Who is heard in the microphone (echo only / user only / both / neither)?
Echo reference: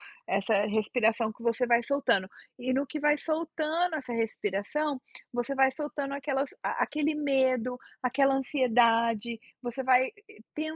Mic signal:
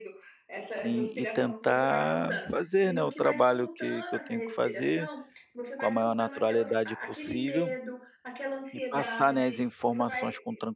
both